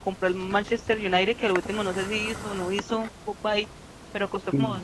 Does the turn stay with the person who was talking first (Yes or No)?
Yes